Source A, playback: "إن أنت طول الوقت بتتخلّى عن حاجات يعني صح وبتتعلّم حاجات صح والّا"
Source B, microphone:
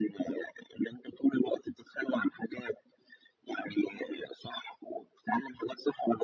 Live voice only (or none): none